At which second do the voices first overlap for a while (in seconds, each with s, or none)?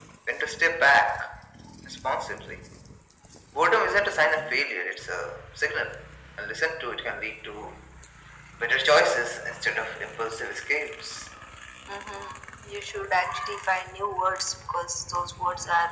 none